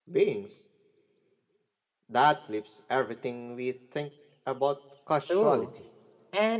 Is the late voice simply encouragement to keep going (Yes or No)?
No